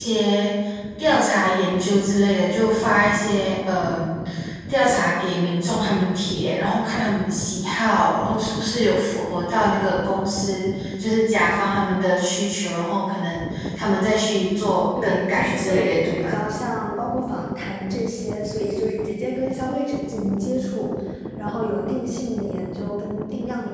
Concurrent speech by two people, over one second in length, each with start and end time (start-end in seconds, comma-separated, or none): 15.0-16.3